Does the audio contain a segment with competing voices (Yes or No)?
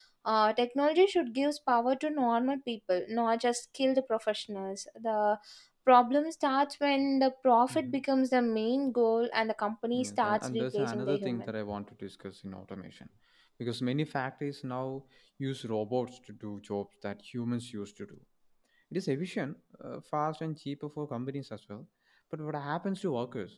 Yes